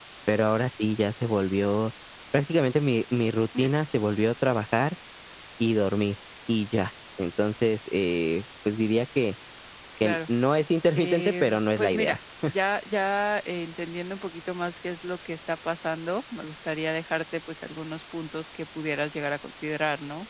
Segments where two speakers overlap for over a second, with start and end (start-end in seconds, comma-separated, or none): 10.9-12.2